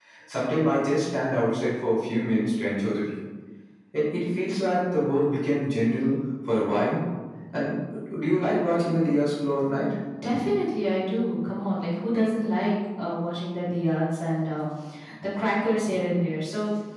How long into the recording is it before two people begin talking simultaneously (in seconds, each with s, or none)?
none